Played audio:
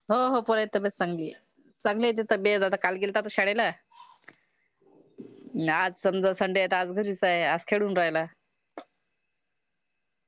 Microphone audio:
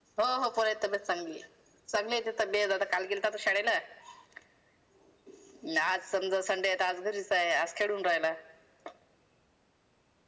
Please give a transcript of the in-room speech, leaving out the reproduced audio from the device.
none

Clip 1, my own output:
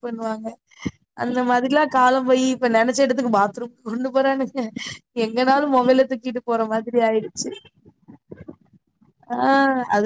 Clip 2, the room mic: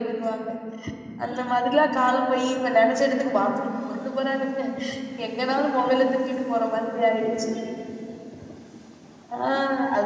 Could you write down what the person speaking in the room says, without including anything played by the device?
none

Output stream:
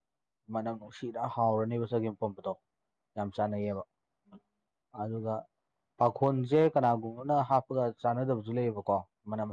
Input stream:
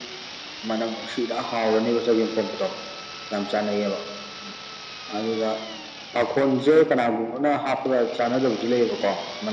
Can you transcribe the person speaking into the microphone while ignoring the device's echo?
none

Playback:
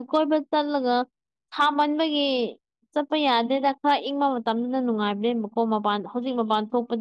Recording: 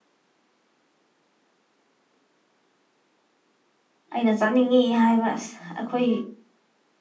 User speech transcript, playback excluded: ꯑꯩꯅ ꯆꯠꯅꯤꯡꯉꯤ ꯍꯥꯏꯕ ꯑꯁ ꯑꯩꯈꯣꯏ

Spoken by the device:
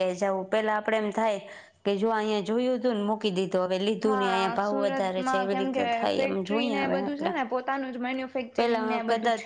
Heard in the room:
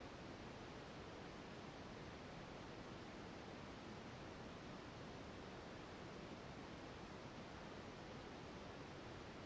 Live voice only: none

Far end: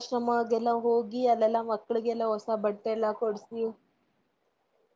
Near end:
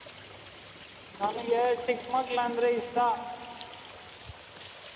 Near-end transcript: ನನಗೆ ಚಿಕ್ಕಮಗ್ಳ ಅಂದ್ರೆ ಇಷ್ಟ

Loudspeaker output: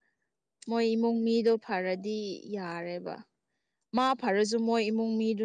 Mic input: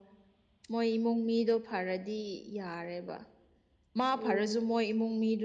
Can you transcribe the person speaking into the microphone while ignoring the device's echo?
ꯎꯝ

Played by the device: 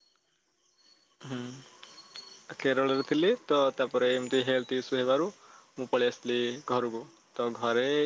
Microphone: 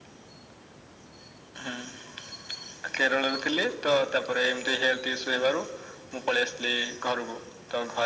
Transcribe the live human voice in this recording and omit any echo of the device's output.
none

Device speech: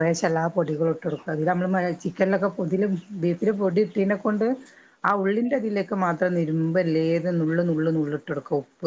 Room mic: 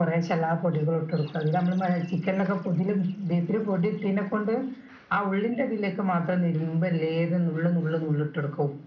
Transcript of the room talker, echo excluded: none

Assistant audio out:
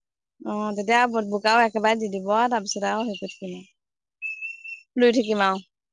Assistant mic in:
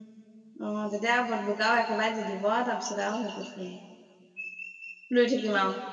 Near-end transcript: none

